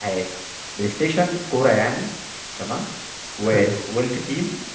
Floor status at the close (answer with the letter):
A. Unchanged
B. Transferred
A